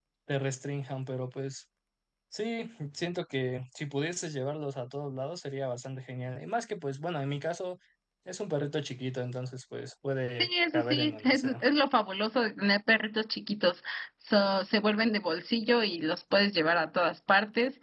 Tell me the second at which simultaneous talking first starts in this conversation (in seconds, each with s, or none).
10.4 s